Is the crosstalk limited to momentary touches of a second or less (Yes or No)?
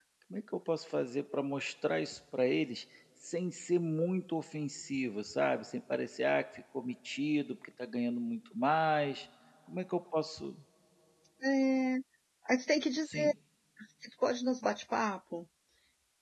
Yes